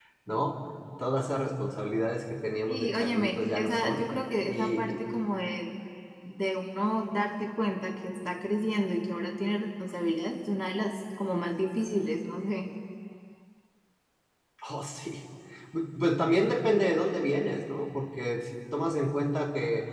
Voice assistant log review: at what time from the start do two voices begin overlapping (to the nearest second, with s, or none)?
3 s